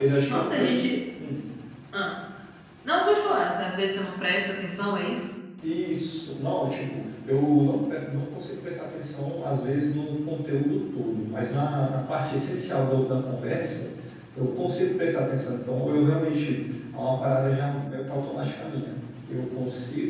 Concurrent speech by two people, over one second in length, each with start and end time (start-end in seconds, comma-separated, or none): none